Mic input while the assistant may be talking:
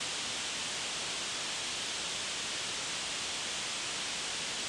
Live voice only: none

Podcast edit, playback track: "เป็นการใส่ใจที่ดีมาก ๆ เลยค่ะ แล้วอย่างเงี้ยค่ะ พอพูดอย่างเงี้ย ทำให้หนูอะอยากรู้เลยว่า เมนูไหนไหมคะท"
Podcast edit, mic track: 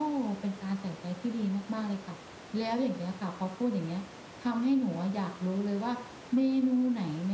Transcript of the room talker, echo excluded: none

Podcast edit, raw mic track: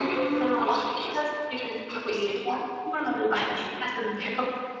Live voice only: none

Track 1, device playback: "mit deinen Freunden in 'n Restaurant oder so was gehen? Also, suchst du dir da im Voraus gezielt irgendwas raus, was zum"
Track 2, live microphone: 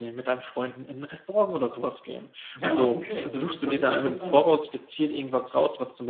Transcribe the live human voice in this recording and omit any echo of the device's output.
ja, okay, das ist das ist interessant.

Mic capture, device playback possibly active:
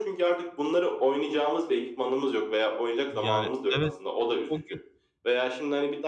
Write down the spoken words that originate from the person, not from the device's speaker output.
he. Yani, evet, o o gün

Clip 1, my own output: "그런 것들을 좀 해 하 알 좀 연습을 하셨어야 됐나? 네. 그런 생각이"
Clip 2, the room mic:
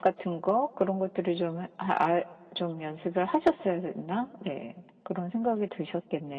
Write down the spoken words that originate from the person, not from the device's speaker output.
none

